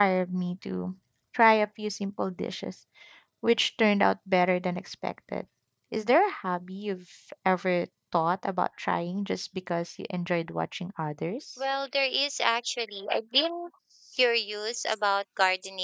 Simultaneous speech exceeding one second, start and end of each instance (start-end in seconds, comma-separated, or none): none